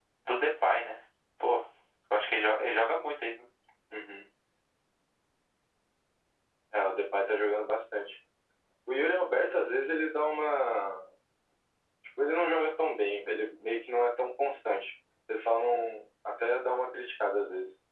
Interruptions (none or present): none